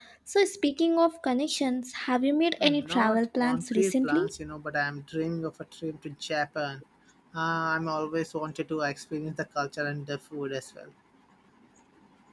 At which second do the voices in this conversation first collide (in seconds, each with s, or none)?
2.6 s